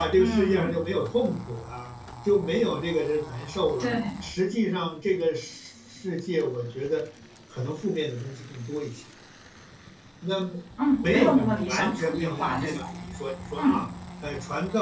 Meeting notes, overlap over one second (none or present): present